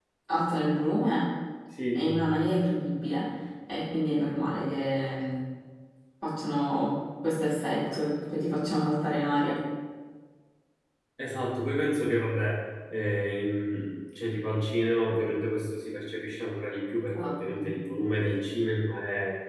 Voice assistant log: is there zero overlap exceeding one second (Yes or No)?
Yes